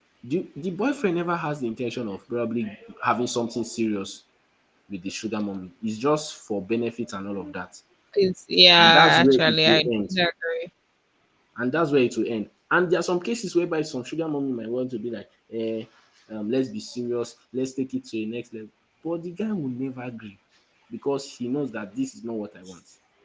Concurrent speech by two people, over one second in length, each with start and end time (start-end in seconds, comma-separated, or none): 8.8-10.1